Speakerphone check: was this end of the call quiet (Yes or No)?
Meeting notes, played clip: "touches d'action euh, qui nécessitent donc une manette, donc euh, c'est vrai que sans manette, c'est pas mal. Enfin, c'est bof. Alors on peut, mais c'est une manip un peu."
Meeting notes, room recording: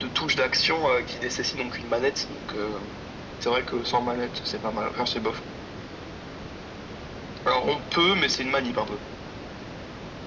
Yes